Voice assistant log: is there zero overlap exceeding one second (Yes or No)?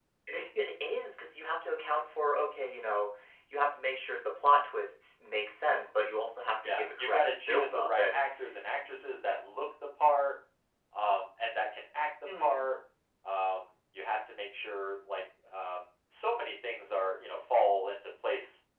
No